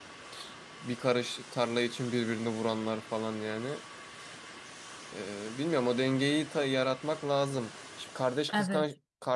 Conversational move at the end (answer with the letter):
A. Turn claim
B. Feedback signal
B